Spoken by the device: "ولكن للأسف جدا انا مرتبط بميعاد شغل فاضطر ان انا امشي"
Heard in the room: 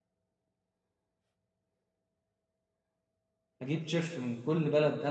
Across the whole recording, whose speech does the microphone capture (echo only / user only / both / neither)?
user only